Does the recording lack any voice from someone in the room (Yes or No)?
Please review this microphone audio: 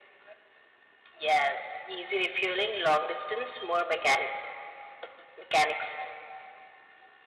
Yes